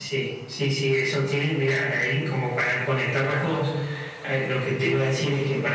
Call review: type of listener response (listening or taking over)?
listening